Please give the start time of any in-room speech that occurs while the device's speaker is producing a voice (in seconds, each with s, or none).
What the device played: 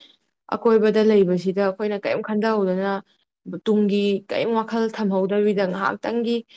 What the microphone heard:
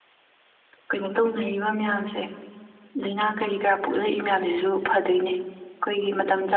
0.9 s